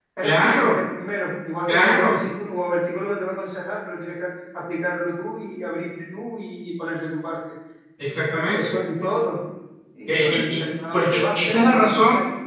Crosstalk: present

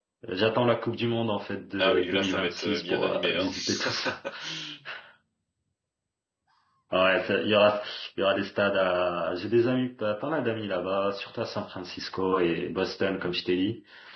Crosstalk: present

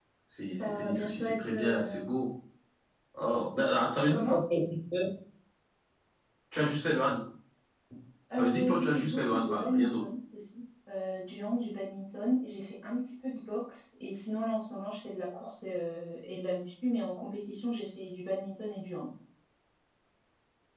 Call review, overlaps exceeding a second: present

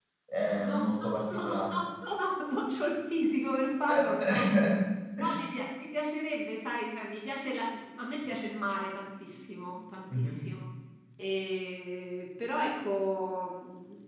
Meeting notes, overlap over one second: present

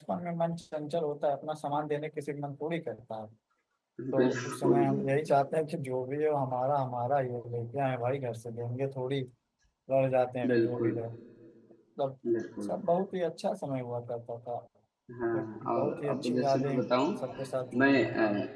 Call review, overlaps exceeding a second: present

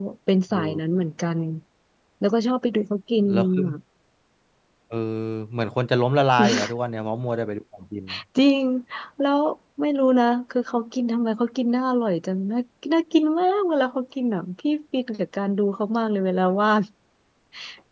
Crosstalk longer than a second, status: none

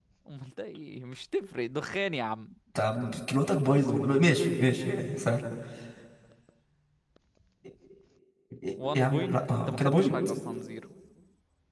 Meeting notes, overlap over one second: present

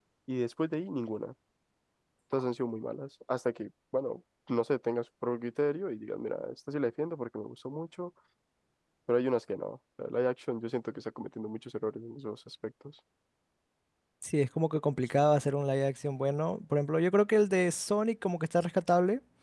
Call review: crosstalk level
none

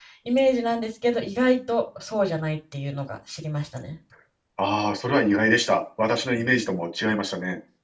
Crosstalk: none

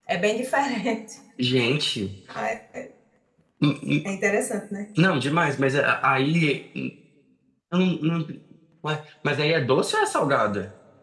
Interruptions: none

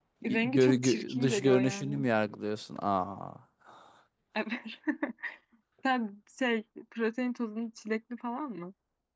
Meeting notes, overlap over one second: present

